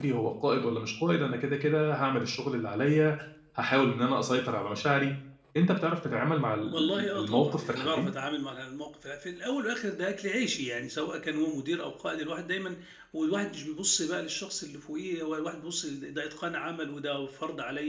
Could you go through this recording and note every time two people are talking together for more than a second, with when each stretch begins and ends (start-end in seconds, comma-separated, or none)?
6.7-8.1